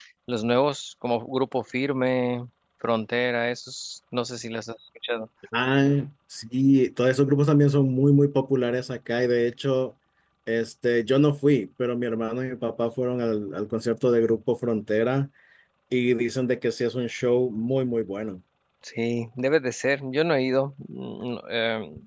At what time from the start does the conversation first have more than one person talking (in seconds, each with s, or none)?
none